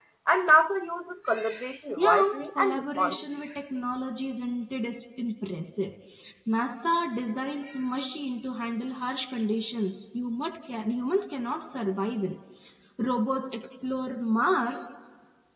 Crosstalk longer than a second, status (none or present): present